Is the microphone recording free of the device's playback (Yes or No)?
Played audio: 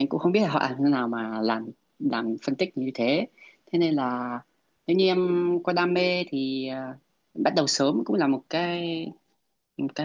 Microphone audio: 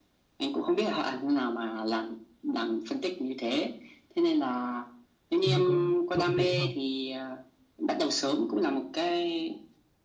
No